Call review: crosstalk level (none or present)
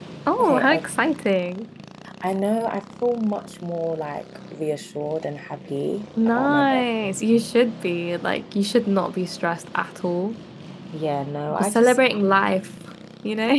present